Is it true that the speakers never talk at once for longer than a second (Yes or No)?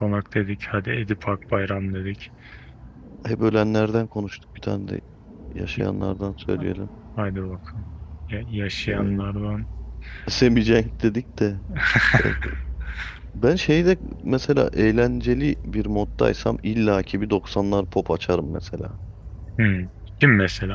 Yes